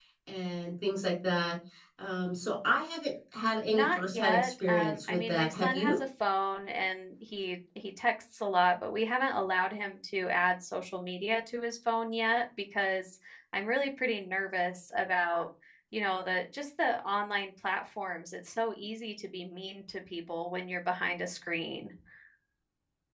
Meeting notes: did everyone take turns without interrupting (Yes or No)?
No